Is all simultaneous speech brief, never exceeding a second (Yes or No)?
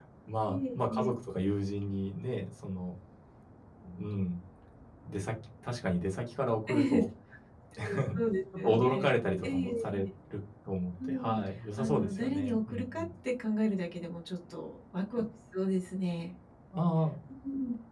No